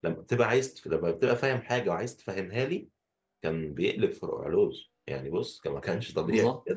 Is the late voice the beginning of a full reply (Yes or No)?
Yes